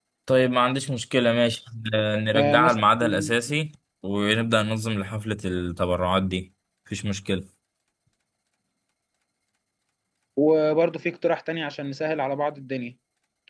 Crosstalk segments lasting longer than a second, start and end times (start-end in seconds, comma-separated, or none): none